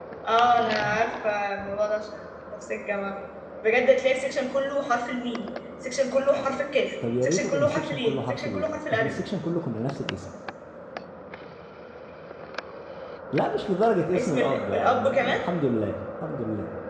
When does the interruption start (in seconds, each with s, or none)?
7.2 s